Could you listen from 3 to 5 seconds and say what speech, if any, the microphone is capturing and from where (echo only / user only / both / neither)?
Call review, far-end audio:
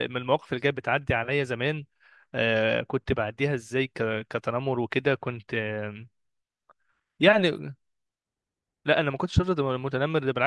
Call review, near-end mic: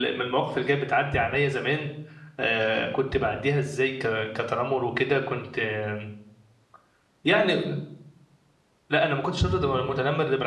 echo only